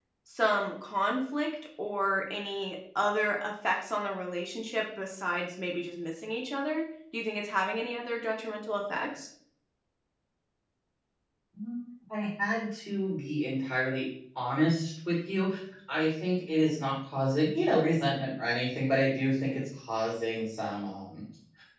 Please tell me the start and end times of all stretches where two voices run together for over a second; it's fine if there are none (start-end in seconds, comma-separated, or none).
none